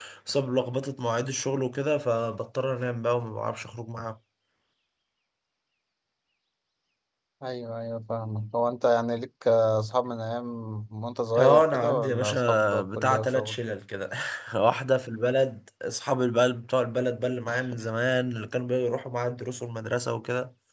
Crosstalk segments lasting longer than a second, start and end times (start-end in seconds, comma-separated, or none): 11.4-13.6